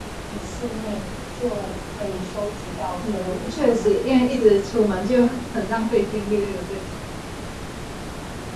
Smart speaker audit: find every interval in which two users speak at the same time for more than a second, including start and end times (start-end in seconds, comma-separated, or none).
3.0-4.4